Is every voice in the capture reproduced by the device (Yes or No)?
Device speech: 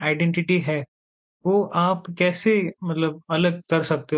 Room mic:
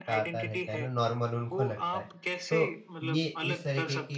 No